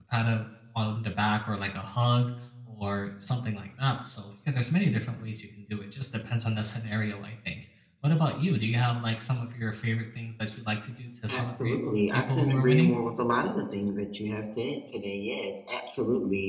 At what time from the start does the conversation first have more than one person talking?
11.3 s

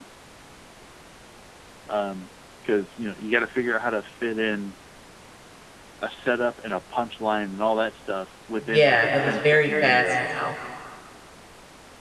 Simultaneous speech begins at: 8.7 s

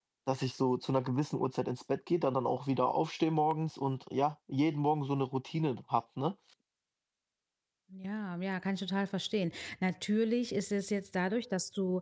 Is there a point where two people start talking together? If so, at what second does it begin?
none

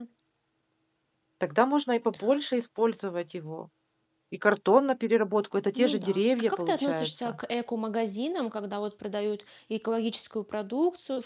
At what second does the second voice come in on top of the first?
5.8 s

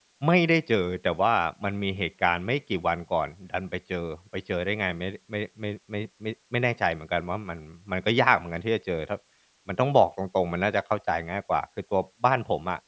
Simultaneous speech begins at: none

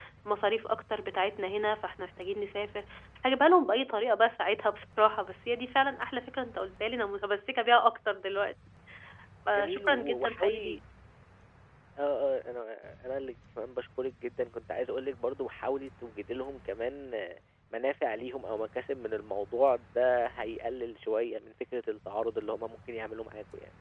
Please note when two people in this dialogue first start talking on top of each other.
9.5 s

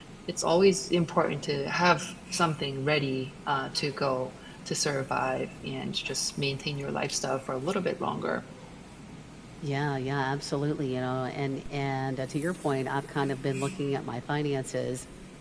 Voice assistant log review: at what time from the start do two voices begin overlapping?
none

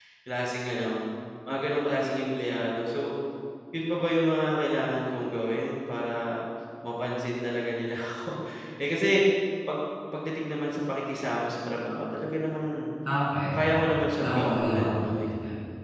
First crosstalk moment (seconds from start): 13.5 s

